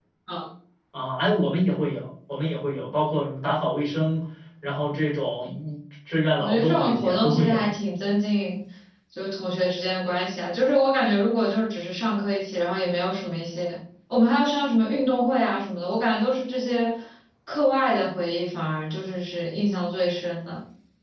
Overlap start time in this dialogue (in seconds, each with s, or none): 6.4 s